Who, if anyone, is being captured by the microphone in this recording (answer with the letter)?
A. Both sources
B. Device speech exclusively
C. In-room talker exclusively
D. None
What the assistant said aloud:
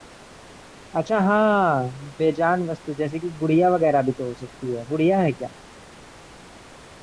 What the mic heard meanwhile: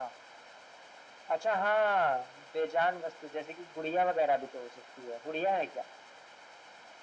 B